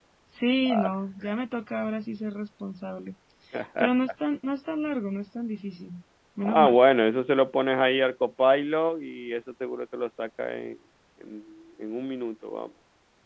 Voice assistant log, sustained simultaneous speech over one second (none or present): none